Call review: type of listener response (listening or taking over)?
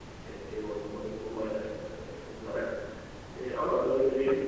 taking over